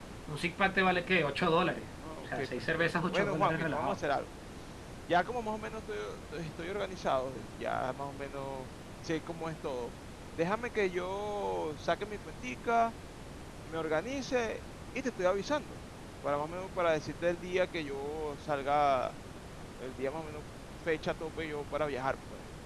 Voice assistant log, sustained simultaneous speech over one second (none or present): present